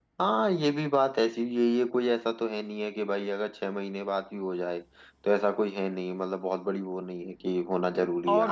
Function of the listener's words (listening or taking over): taking over